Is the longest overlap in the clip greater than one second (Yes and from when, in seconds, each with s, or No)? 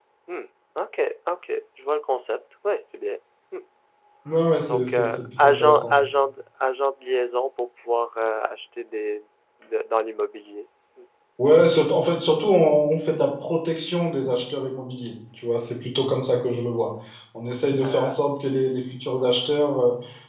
Yes, from 4.7 s